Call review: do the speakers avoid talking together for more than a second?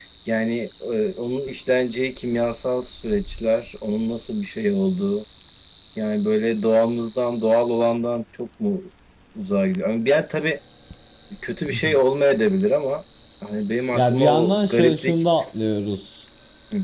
No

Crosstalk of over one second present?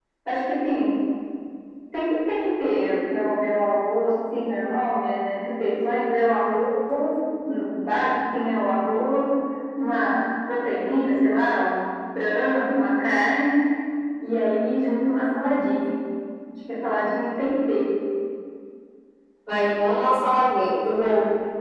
No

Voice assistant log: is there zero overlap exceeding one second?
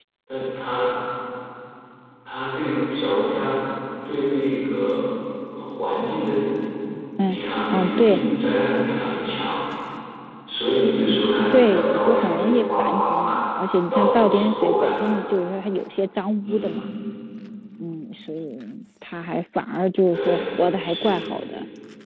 No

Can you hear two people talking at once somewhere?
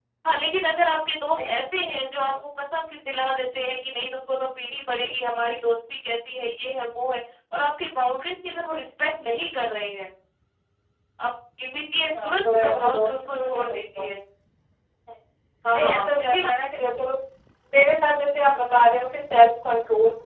Yes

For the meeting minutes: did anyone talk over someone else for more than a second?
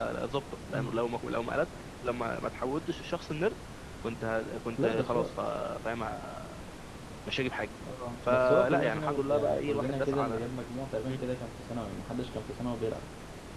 Yes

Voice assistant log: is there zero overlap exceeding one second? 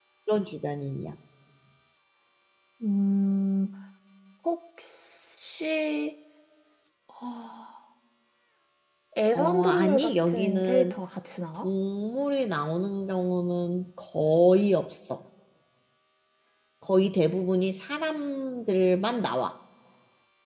No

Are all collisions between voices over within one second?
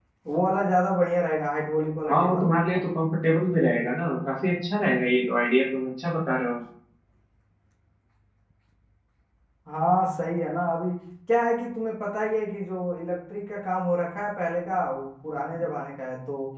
Yes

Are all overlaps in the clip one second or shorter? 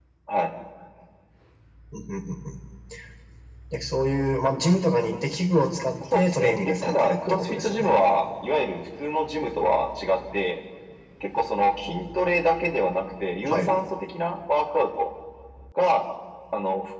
No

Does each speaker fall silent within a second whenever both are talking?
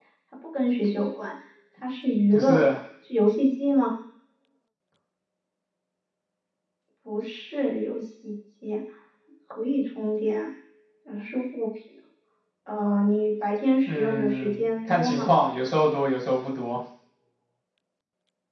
No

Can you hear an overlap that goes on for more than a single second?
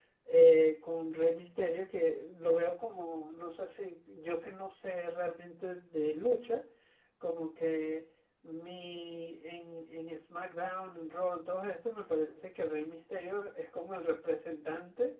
No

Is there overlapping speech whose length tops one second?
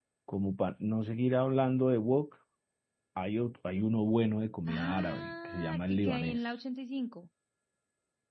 Yes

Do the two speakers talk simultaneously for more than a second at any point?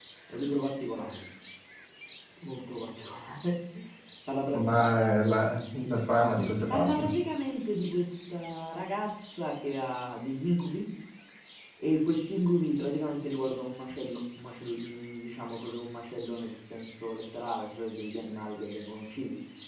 No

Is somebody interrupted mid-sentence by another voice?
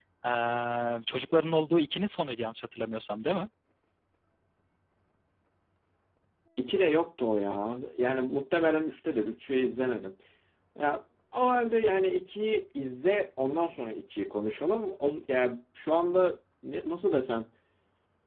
No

